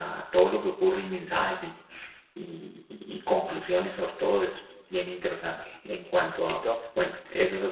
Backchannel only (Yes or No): Yes